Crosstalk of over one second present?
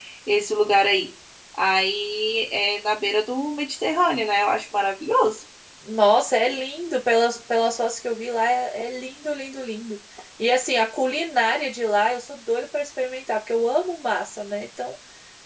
No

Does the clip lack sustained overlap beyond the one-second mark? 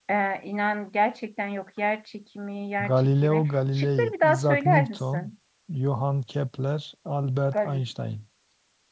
No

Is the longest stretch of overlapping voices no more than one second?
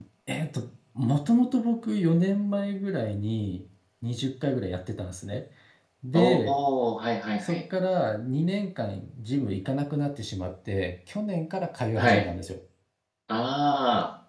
Yes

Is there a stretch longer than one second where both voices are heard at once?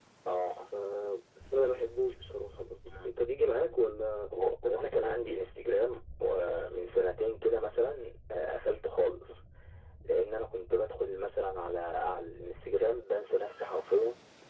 No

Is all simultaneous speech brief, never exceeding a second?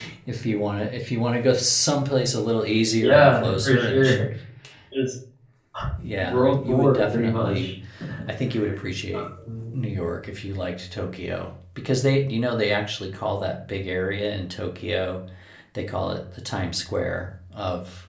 No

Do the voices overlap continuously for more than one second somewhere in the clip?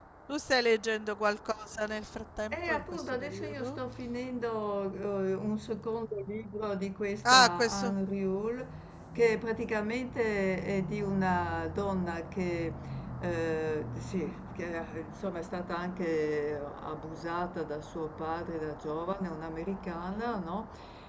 Yes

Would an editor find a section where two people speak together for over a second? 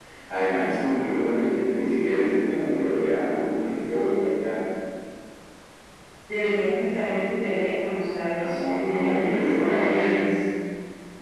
Yes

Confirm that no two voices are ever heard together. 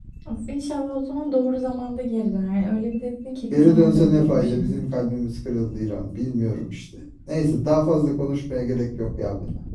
No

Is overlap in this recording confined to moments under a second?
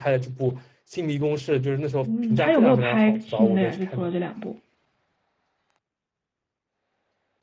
No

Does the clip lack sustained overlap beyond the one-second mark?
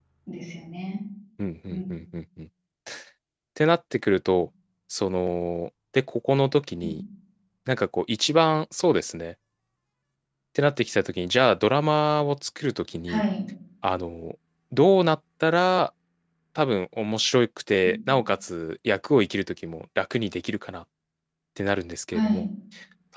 Yes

